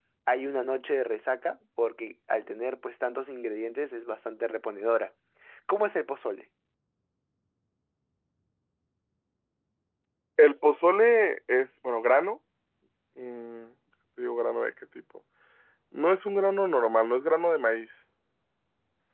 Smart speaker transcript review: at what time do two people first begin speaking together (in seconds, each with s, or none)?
none